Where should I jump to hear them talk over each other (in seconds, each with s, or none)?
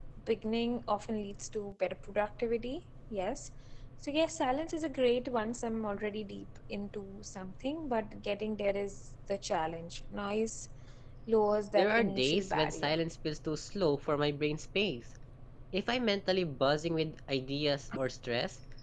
11.7 s